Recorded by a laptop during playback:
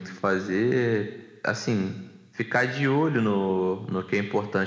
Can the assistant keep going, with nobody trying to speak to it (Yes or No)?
Yes